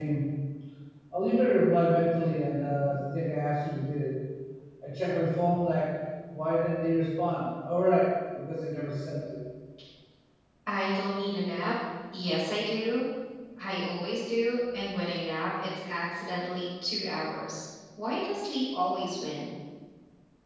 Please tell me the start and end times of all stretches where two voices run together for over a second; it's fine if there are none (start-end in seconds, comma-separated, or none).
none